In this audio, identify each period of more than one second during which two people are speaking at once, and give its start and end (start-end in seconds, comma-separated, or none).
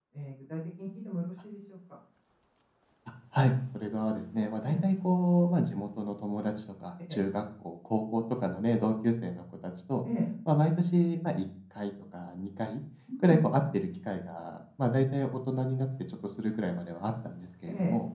none